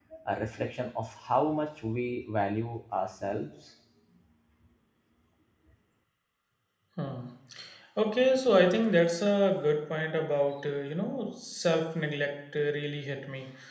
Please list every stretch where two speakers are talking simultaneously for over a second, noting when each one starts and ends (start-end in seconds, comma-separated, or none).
none